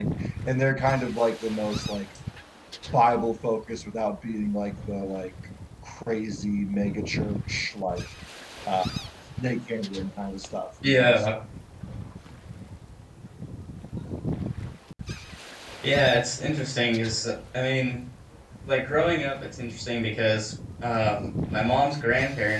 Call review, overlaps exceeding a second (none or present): none